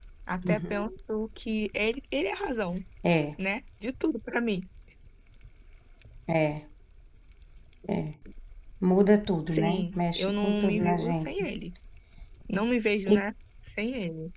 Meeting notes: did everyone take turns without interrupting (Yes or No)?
No